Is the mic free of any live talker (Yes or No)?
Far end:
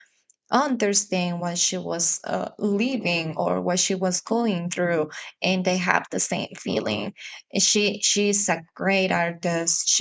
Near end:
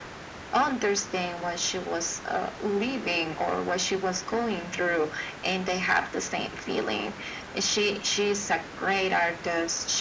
Yes